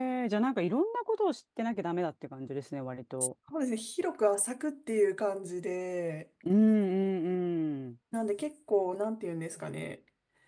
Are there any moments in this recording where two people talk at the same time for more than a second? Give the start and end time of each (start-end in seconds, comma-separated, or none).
none